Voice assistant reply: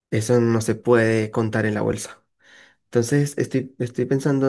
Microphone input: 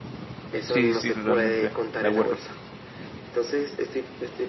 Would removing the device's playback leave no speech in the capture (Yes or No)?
No